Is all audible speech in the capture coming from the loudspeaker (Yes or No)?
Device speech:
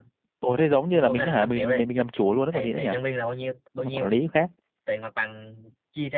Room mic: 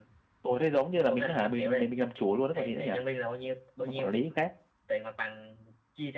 Yes